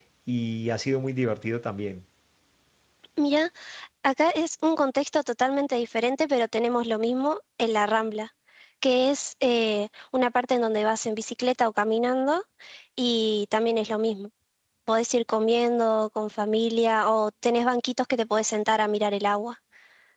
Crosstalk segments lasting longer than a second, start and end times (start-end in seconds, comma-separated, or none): none